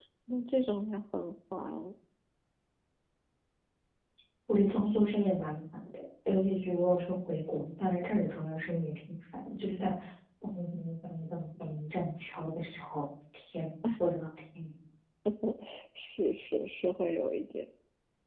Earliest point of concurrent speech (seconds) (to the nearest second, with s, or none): none